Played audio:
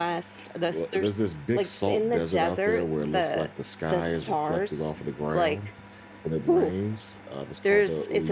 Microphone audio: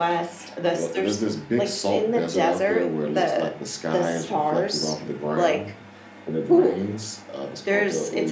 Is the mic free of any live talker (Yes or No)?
Yes